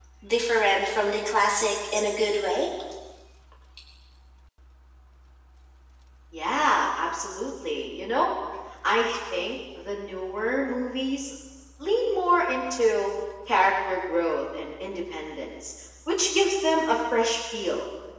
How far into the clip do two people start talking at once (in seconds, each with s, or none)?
none